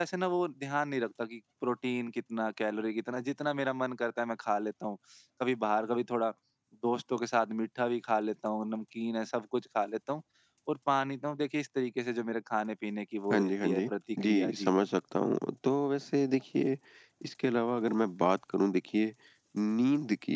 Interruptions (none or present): present